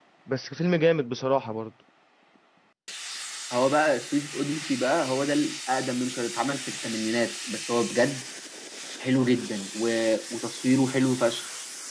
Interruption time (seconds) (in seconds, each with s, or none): none